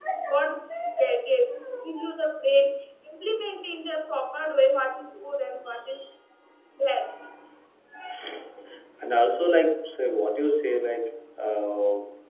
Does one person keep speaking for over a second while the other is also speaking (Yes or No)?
No